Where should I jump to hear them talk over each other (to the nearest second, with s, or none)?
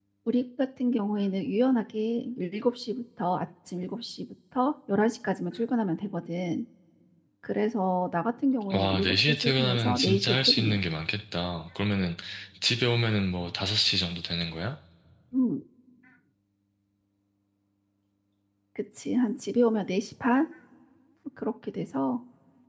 9 s